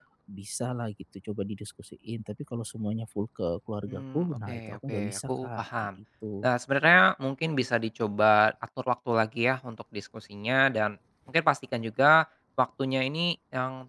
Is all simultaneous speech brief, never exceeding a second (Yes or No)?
No